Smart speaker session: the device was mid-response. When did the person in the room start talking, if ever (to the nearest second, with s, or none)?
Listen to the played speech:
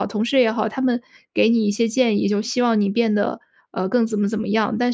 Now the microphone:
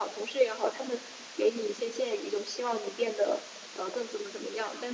none